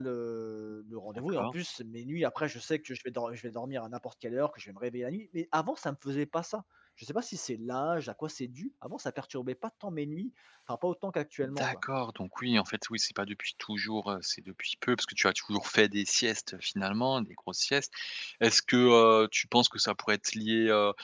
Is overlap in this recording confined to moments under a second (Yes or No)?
Yes